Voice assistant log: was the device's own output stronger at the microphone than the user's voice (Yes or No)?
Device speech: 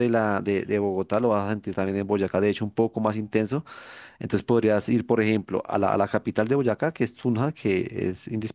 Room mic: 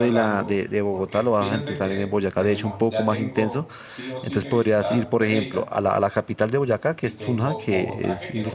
Yes